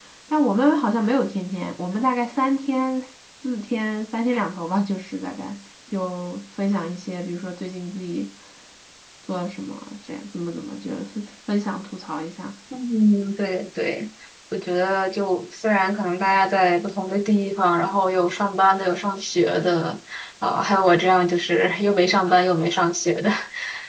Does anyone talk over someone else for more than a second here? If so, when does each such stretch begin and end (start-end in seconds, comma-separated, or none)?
none